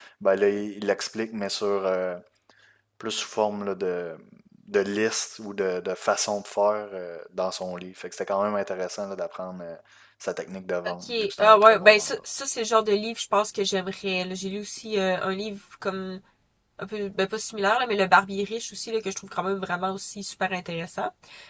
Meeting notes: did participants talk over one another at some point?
Yes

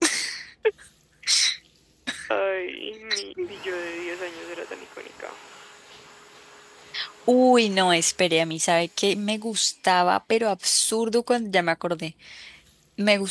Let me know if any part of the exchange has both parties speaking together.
No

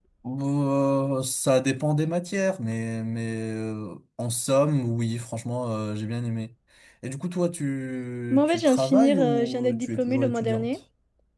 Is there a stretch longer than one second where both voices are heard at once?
Yes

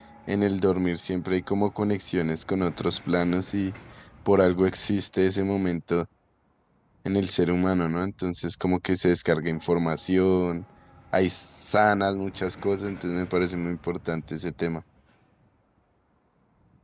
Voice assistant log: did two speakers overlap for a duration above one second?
No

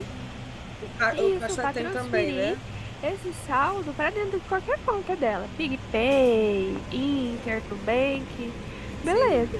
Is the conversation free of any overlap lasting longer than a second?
No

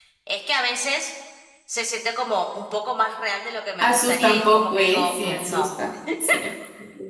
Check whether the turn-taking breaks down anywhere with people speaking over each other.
Yes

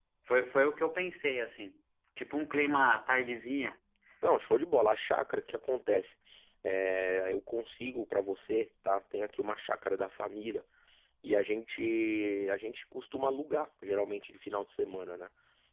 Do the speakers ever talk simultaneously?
No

